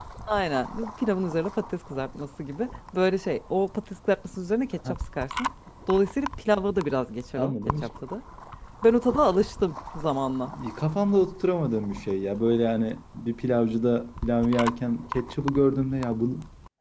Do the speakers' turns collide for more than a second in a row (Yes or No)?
No